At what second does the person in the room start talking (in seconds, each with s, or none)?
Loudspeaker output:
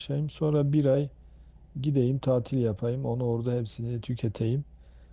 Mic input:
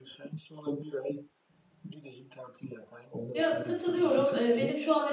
3.3 s